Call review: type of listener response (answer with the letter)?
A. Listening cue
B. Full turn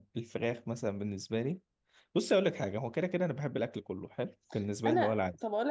B